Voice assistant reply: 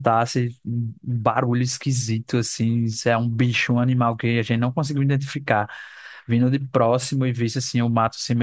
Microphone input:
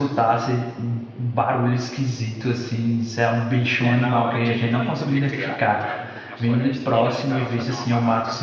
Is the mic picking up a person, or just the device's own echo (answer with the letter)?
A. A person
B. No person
A